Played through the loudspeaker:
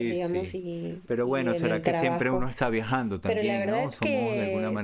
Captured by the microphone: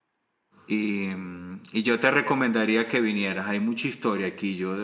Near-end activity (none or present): present